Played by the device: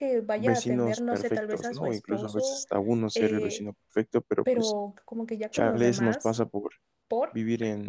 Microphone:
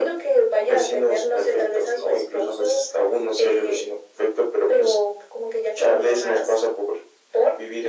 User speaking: No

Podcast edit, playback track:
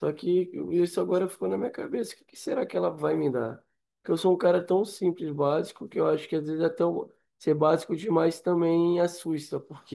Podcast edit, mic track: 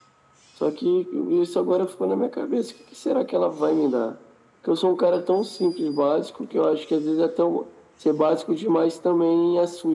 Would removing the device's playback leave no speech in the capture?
Yes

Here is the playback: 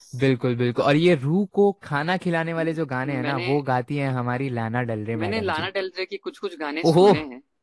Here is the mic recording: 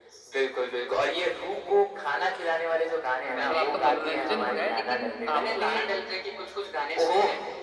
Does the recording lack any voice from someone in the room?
No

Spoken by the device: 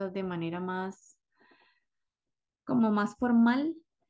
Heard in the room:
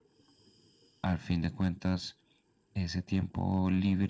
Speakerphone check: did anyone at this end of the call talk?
Yes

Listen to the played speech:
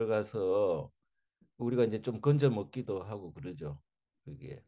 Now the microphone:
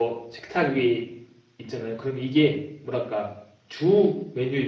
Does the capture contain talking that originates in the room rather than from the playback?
Yes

